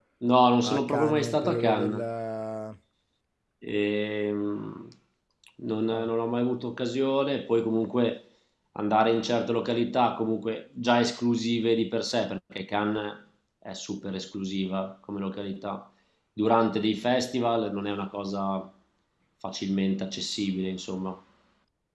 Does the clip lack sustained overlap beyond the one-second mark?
No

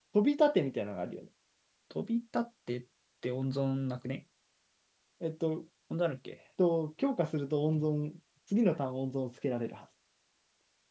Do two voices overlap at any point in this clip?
No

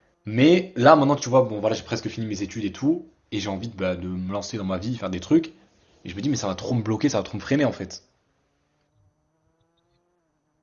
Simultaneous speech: No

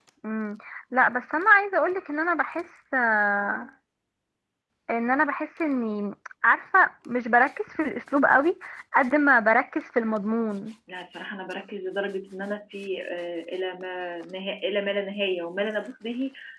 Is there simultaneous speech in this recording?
No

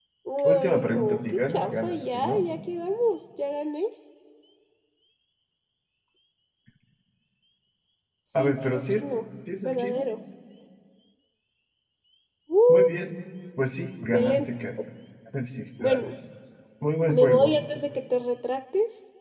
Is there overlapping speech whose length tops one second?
Yes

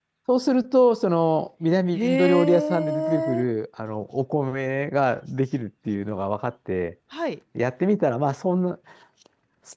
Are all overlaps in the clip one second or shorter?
No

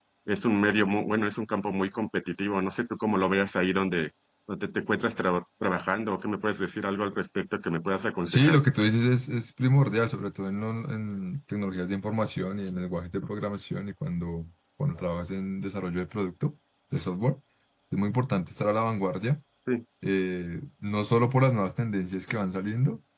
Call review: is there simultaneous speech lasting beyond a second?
No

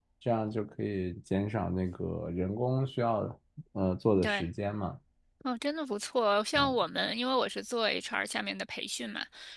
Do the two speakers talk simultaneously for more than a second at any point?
No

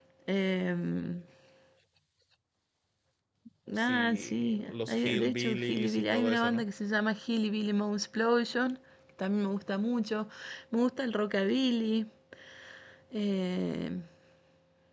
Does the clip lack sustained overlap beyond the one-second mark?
No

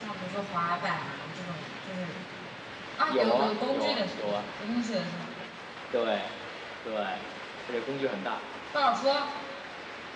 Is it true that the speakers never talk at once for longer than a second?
No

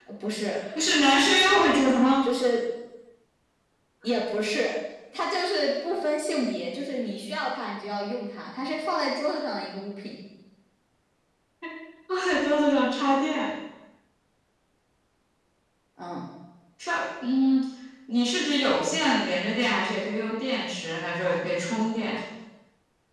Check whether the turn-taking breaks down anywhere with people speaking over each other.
No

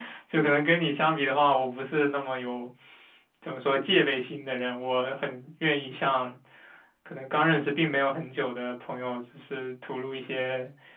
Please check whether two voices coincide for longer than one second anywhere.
No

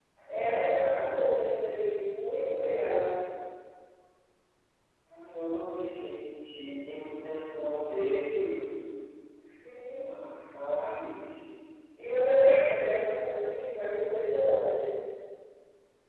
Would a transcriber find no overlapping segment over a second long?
Yes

